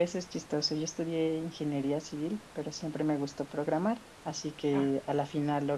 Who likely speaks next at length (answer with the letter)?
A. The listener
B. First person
B